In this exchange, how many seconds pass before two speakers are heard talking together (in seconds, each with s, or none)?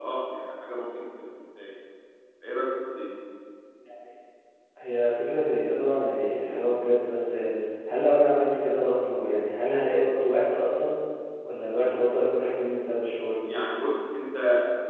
none